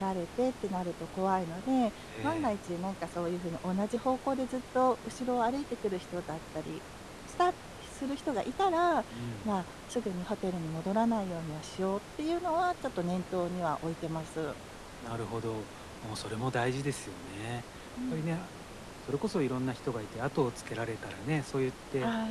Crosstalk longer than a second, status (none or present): none